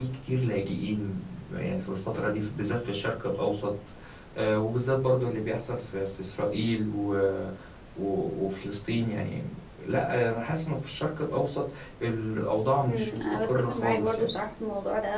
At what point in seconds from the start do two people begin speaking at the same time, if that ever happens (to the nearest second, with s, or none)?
13 s